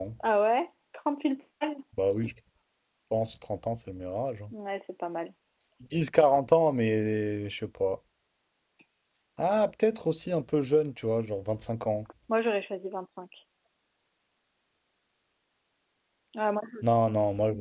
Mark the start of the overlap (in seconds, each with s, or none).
none